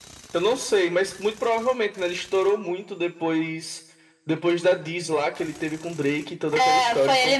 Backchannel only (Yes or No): No